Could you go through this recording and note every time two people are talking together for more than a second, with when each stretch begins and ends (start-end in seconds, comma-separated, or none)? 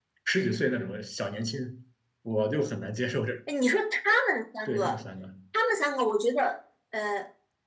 none